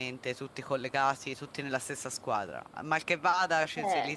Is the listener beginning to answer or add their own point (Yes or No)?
No